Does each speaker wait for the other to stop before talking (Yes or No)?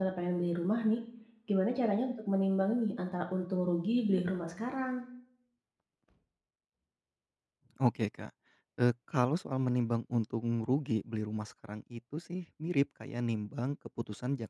Yes